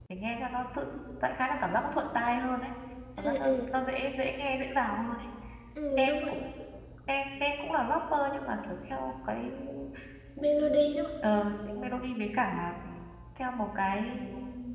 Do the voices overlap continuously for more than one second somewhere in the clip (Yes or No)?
No